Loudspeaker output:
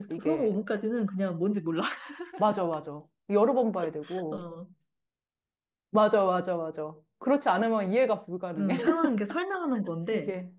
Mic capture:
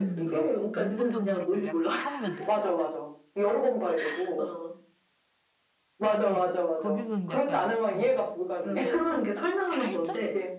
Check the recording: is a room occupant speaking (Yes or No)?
Yes